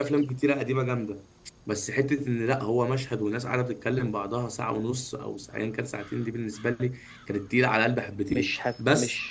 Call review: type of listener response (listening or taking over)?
taking over